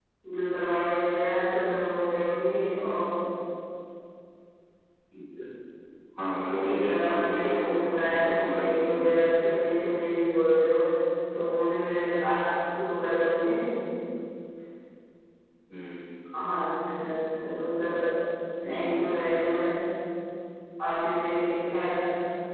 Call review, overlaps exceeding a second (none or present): present